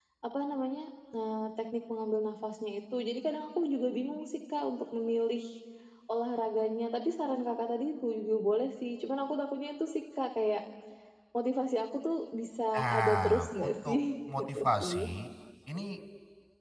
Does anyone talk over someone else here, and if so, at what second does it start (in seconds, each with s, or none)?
12.7 s